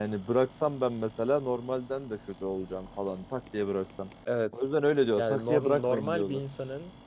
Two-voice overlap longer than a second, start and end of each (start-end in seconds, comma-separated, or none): 5.2-6.4